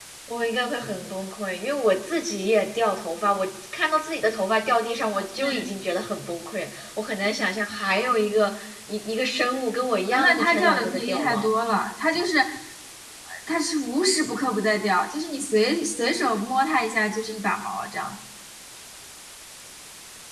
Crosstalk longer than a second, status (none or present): present